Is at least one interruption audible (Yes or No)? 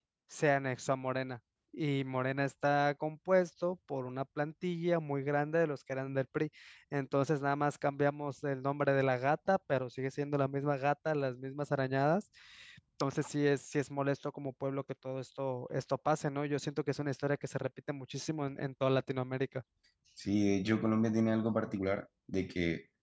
No